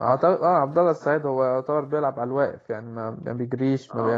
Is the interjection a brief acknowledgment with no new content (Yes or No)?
No